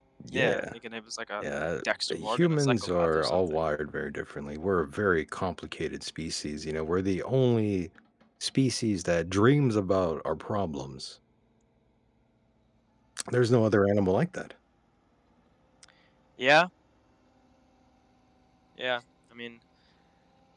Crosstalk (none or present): present